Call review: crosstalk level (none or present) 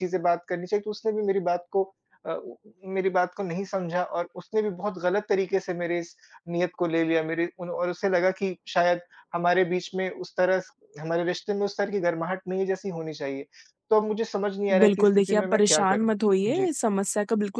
present